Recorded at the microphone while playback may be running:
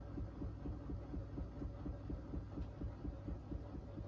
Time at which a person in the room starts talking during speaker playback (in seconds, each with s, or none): none